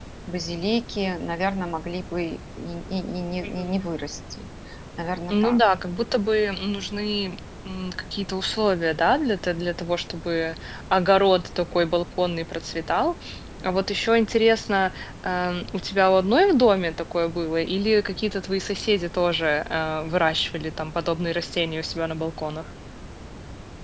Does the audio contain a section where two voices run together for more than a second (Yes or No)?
No